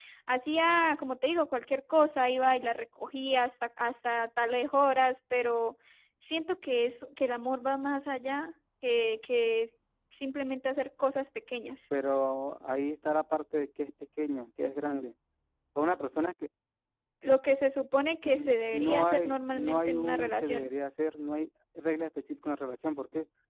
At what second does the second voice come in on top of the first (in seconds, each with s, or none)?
18.2 s